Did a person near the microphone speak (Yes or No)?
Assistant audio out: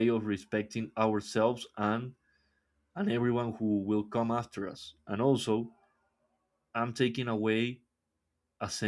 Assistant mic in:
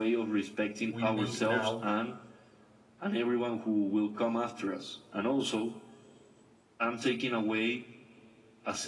Yes